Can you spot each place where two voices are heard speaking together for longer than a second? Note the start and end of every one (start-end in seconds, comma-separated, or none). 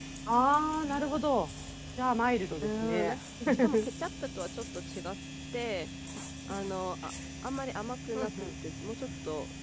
none